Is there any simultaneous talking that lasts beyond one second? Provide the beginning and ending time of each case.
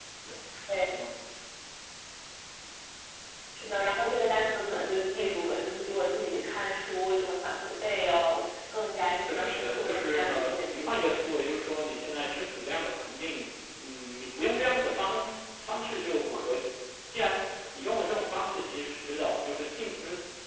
9.3-11.1

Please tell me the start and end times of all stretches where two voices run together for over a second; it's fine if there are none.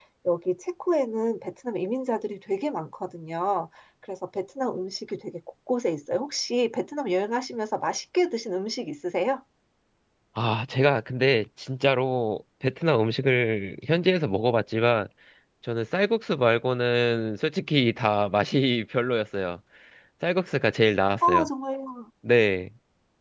none

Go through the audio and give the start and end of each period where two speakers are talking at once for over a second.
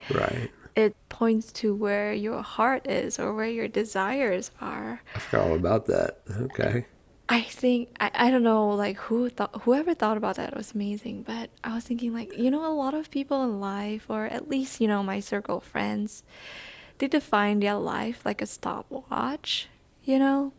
none

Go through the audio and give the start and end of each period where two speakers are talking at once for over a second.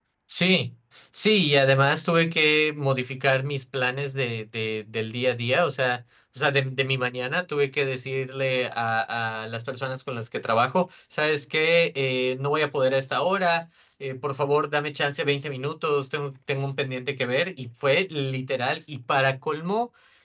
none

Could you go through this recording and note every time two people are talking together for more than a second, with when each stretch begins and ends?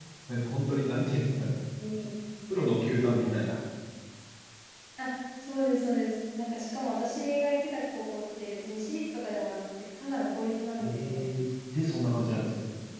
none

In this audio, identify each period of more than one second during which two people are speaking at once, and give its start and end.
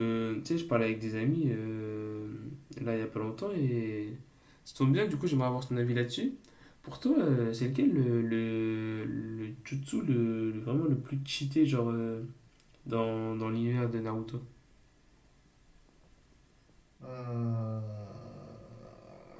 none

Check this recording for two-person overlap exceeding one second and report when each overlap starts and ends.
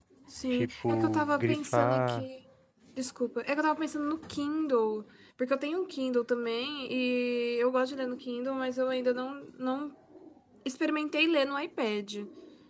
0.5-2.3

